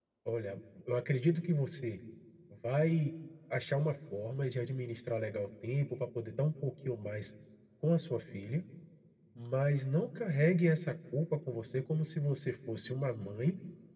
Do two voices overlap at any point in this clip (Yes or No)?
No